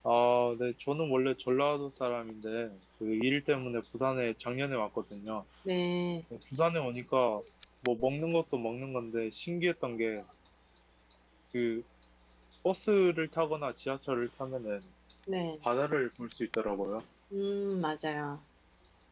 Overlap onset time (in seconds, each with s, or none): none